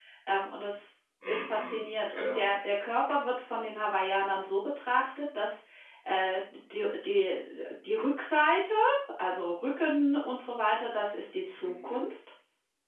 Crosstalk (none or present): present